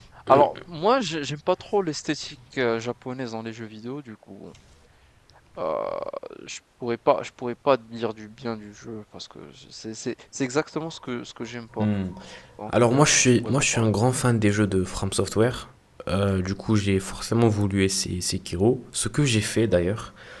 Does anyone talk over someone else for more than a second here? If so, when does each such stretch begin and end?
12.7-13.9

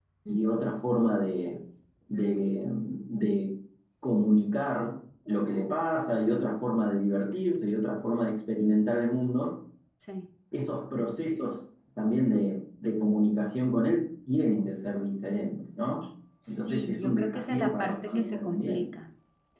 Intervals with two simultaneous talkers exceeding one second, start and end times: 16.5-18.9

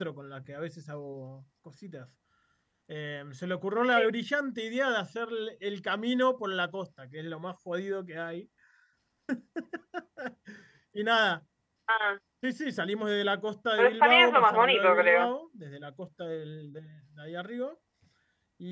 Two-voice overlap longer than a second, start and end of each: 13.8-15.2

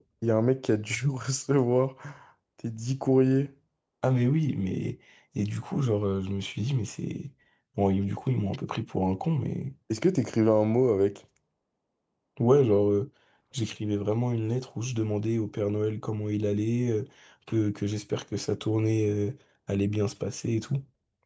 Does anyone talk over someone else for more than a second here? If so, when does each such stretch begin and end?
none

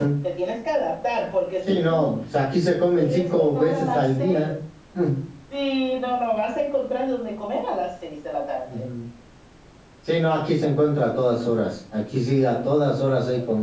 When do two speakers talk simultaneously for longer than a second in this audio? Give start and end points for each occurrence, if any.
3.0-4.4

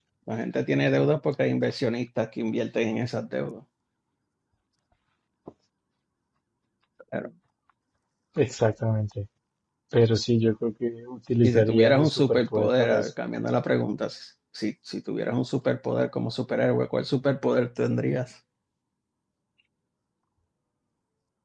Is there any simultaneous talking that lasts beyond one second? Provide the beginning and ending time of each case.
11.4-13.0

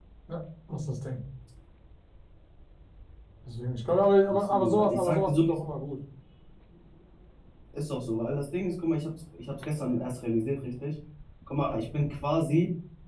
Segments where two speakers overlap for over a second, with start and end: 4.3-5.6

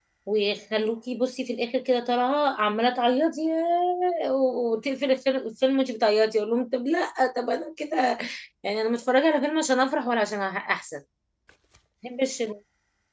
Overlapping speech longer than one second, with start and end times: none

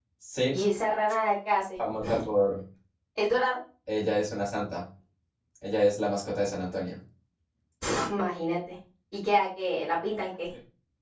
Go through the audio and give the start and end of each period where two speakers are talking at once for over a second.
none

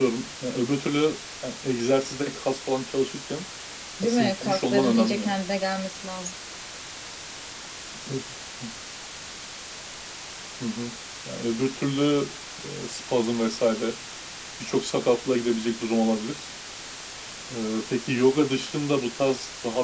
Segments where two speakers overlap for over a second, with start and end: 4.0-5.3

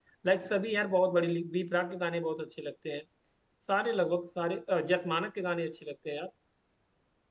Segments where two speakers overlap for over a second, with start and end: none

